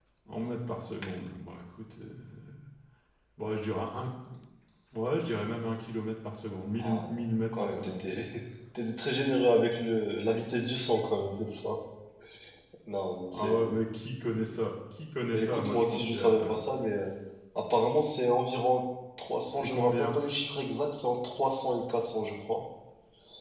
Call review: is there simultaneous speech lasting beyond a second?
Yes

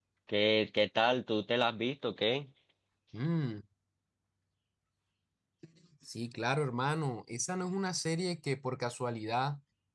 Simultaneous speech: No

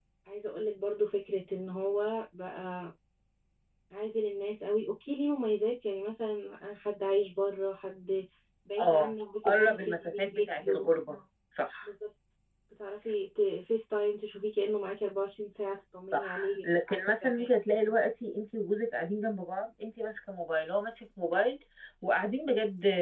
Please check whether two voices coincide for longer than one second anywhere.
Yes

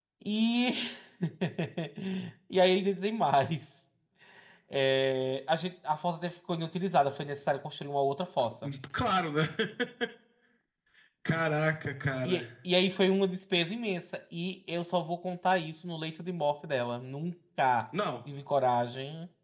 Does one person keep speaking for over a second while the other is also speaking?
No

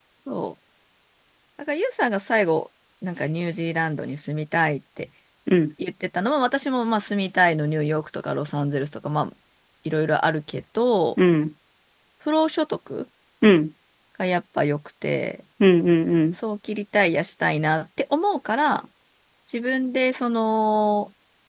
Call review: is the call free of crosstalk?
Yes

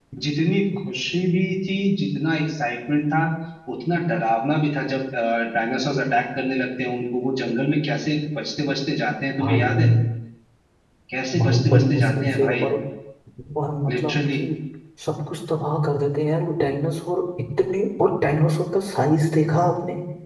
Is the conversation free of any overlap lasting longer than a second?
No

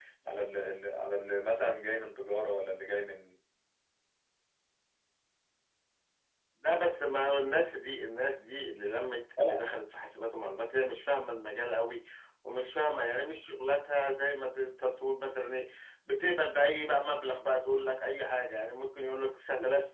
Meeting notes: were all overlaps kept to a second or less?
Yes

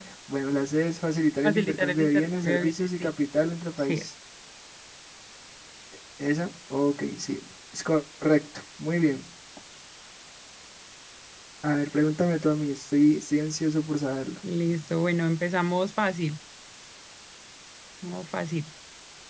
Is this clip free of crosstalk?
No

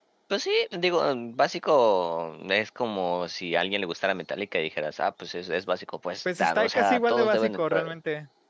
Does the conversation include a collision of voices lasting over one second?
Yes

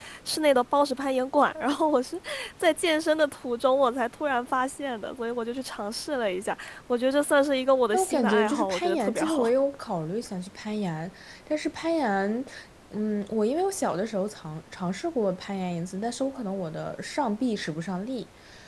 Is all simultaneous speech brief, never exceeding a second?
No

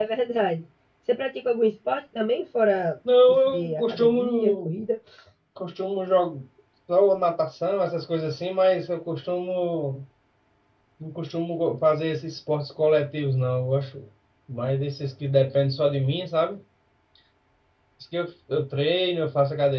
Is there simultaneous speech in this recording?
Yes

